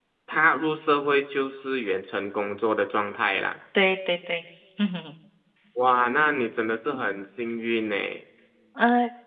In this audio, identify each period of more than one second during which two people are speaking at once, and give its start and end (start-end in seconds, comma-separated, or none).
none